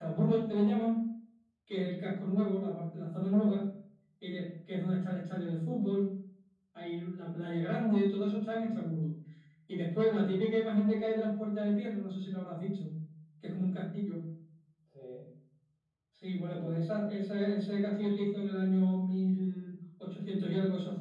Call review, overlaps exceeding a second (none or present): none